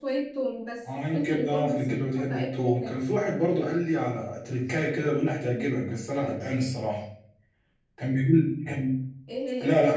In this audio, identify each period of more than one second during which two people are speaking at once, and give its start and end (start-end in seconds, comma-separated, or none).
1.1-3.0